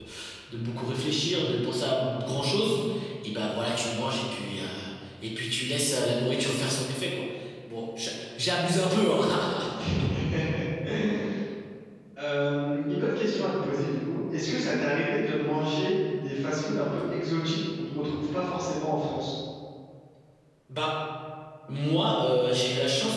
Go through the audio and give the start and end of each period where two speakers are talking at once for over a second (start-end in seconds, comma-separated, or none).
none